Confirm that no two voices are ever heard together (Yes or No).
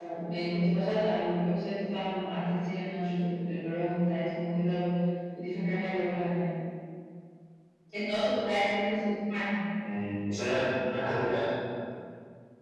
Yes